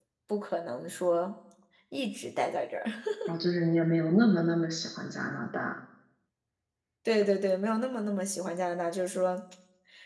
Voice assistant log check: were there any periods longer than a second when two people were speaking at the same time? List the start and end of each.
none

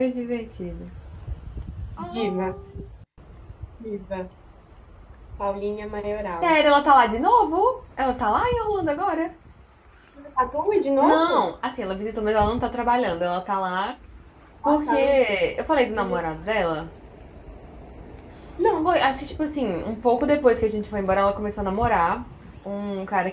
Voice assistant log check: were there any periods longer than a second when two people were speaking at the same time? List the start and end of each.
none

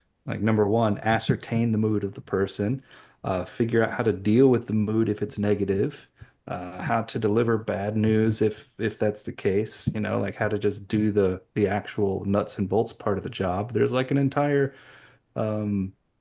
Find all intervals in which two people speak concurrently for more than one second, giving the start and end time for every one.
none

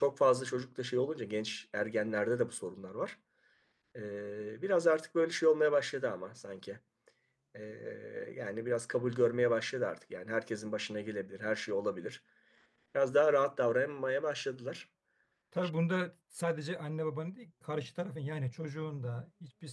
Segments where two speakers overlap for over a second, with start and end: none

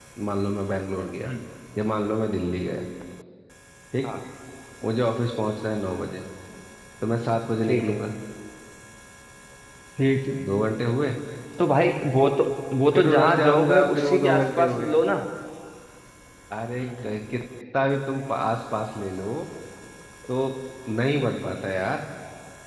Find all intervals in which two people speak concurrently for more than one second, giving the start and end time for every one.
12.9-14.9

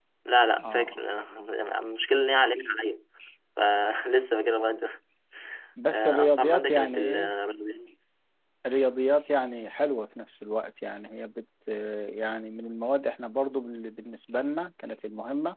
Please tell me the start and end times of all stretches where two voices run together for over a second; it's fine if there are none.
5.9-7.3

